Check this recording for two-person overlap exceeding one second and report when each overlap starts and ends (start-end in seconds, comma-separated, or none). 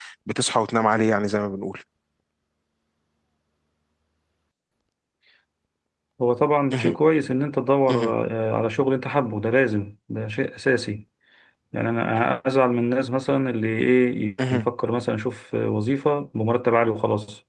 none